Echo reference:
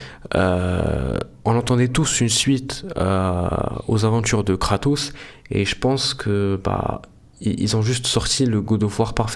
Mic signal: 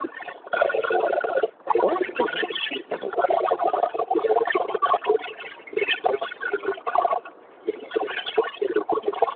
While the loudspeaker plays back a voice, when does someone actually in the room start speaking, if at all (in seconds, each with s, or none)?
1.8 s